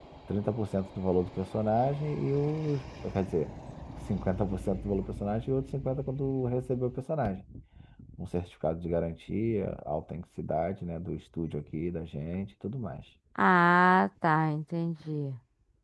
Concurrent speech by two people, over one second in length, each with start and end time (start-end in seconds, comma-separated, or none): none